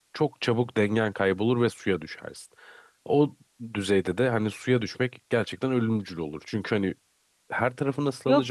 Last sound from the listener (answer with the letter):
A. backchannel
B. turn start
B